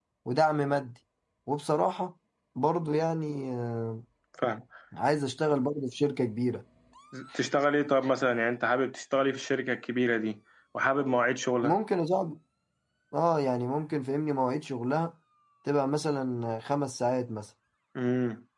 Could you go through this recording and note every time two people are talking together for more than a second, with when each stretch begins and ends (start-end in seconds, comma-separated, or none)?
none